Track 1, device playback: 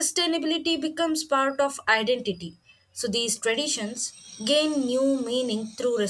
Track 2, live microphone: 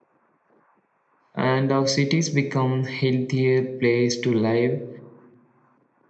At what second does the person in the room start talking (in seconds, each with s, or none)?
1.3 s